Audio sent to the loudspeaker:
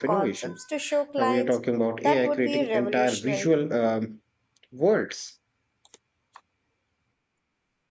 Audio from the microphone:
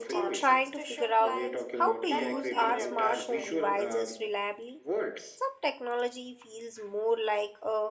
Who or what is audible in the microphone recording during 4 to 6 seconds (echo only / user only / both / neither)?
both